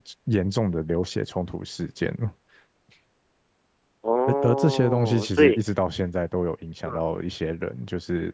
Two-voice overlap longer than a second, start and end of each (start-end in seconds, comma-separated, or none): 4.3-5.6